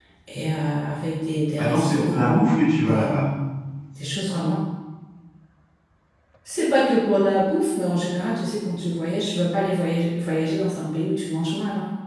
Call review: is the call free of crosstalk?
No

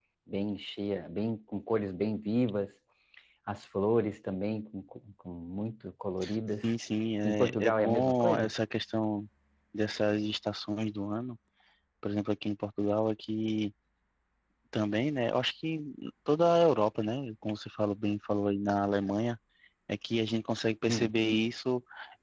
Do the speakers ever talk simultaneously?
Yes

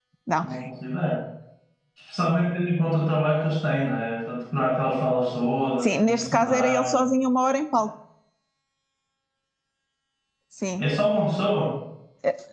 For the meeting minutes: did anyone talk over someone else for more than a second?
Yes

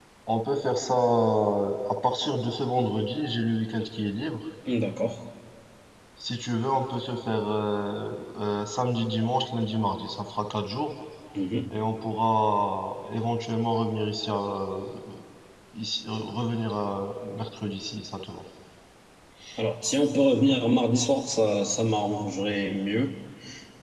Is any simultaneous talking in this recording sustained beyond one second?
No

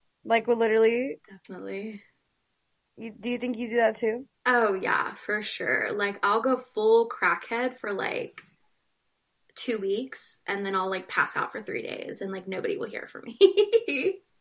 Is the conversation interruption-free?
Yes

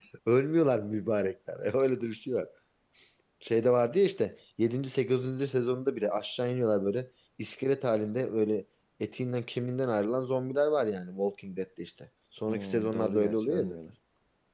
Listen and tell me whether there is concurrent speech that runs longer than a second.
Yes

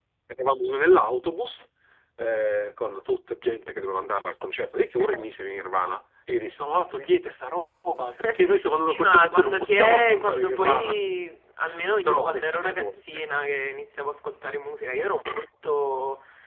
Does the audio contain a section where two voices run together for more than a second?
Yes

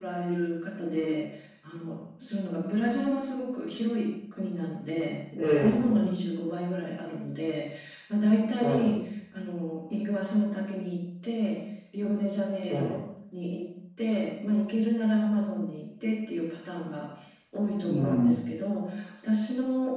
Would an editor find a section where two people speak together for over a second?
No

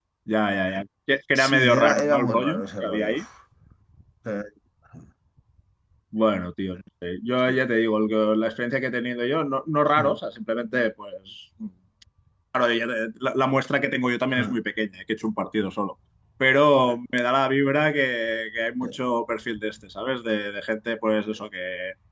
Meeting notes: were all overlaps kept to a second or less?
No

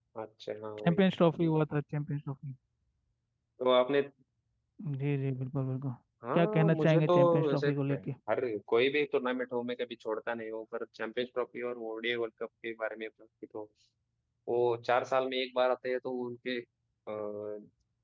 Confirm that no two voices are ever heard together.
No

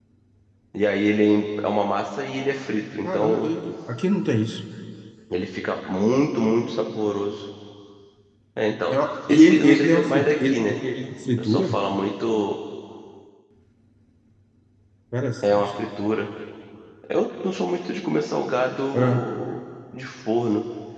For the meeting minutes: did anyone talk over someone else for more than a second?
Yes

